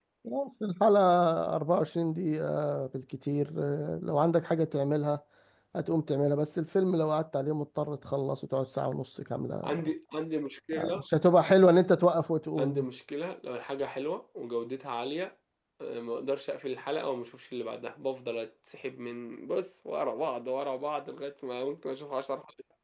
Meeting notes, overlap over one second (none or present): none